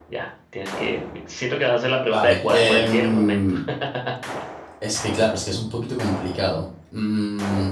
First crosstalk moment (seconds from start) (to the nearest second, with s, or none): 2 s